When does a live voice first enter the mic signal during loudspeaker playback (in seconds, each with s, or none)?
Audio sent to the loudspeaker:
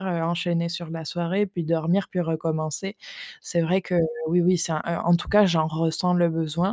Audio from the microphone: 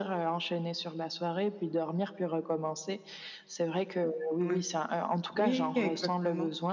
4.4 s